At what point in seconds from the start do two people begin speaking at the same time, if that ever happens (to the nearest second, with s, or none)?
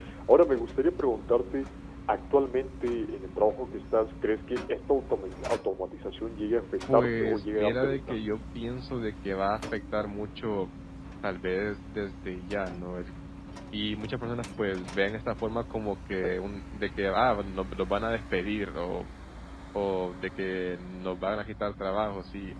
7 s